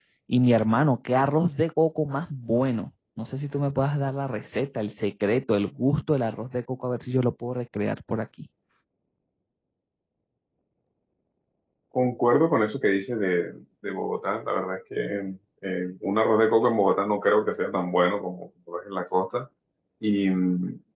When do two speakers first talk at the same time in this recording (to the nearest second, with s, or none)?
none